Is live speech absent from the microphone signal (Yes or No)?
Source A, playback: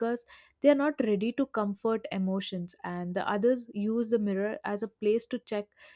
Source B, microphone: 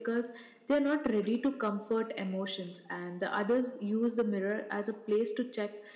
Yes